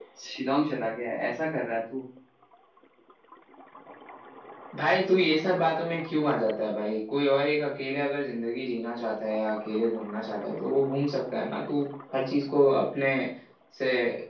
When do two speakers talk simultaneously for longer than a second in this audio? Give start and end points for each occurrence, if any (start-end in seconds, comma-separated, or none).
none